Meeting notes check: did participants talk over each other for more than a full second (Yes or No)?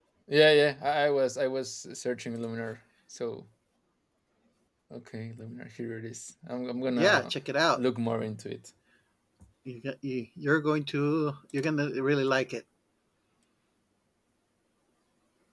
No